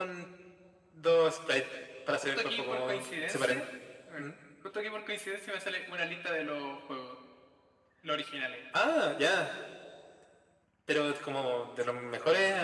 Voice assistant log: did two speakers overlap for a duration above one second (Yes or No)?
Yes